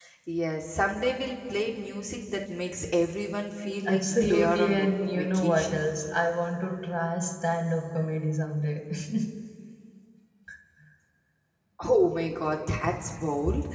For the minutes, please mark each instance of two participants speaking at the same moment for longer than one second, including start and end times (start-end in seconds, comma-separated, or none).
3.9-5.8